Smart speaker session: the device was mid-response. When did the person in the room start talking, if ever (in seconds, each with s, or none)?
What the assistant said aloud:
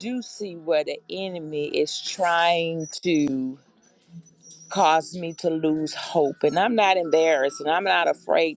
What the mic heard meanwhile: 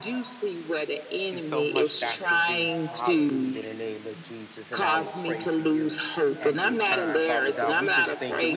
1.3 s